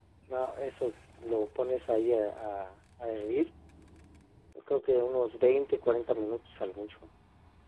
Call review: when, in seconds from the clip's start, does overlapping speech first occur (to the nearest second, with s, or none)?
none